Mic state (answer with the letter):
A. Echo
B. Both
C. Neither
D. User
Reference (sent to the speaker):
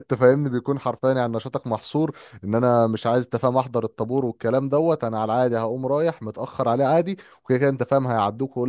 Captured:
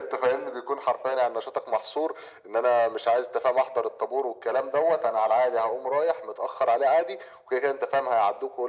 A